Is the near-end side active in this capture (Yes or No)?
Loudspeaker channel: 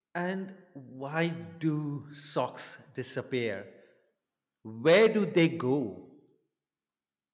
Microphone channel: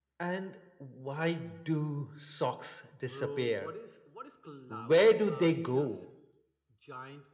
Yes